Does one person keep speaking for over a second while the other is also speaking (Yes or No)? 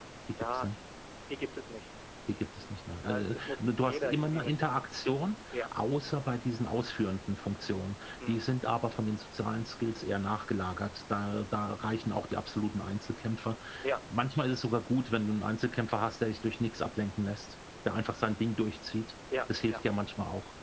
Yes